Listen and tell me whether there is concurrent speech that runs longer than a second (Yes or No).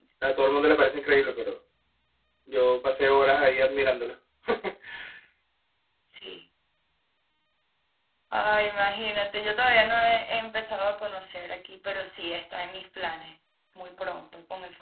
No